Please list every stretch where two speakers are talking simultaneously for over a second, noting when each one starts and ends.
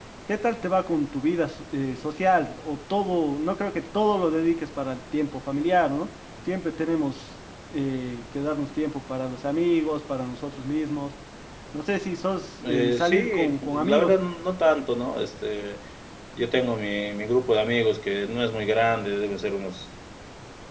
12.6-14.1

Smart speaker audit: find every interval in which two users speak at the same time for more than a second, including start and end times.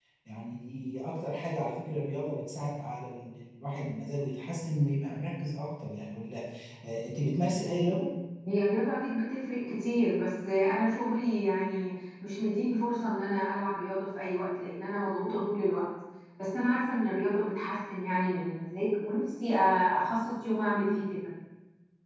none

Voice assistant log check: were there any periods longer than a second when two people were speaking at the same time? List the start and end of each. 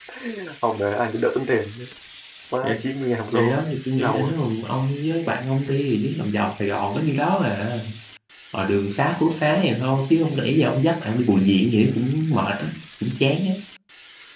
none

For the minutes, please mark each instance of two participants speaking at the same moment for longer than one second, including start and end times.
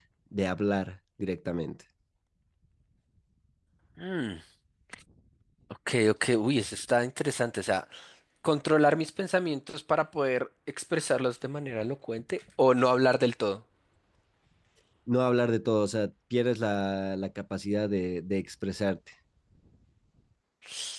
none

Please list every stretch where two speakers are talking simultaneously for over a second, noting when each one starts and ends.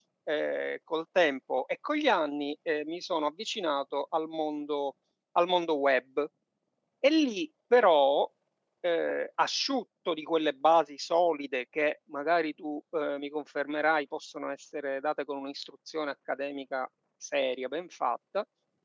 none

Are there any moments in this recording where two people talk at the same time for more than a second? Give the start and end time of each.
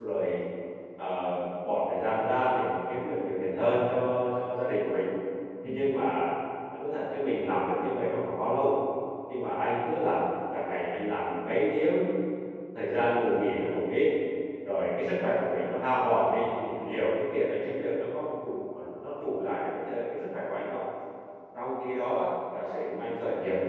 none

